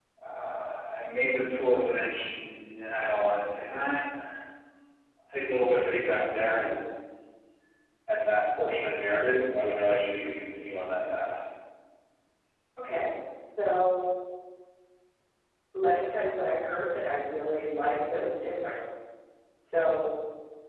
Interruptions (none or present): none